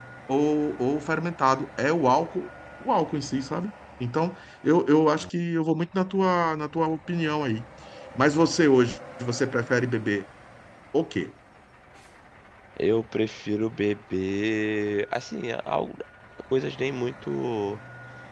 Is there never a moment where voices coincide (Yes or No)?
Yes